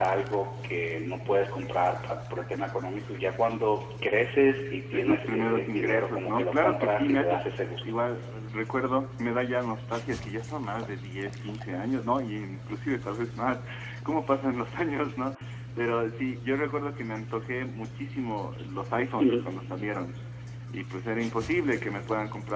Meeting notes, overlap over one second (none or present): present